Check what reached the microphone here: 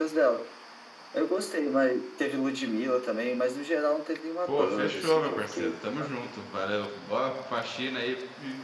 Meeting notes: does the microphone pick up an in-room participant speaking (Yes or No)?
Yes